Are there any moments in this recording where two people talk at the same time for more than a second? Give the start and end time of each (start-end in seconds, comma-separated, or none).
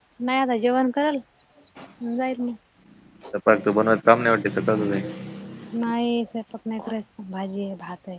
none